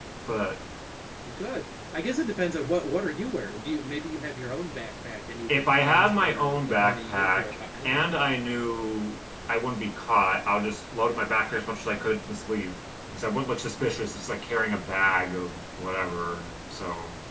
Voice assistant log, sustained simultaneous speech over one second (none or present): present